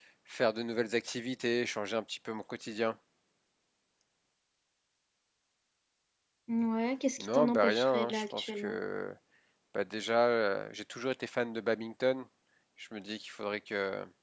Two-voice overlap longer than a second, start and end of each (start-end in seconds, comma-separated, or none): 7.2-8.8